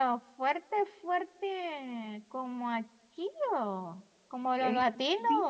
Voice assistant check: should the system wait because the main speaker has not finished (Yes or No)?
No